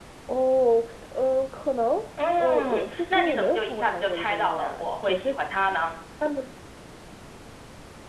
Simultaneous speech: Yes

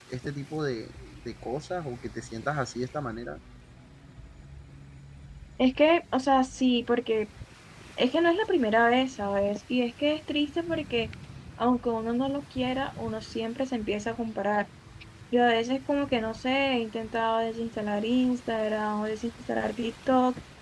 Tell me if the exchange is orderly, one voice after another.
Yes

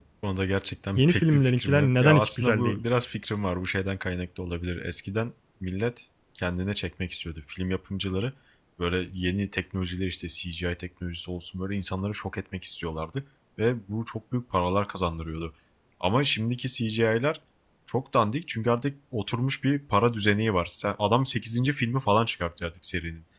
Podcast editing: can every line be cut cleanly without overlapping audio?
No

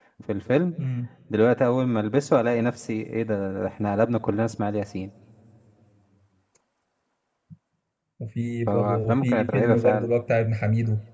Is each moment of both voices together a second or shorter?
No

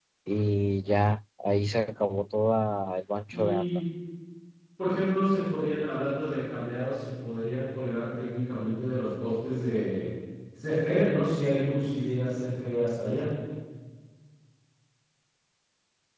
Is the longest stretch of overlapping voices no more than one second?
Yes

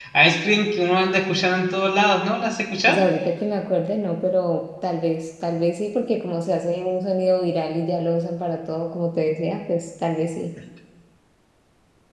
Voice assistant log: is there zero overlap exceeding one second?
Yes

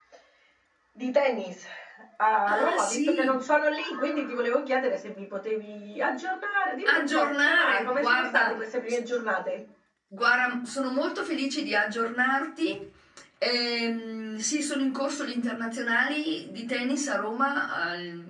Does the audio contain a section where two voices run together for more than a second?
Yes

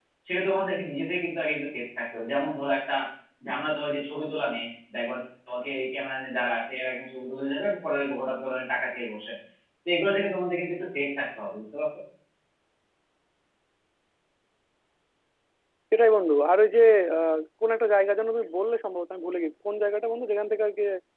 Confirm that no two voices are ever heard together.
Yes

